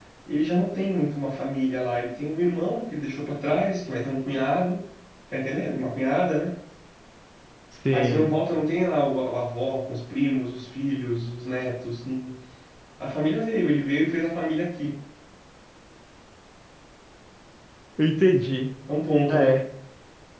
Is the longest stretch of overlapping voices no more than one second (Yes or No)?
Yes